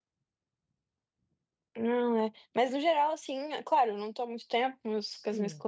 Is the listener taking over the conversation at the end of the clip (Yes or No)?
No